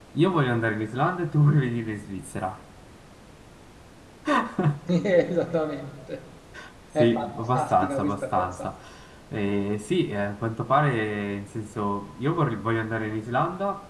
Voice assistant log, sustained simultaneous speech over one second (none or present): present